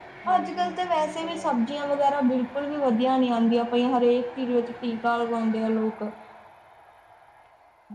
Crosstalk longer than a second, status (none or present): present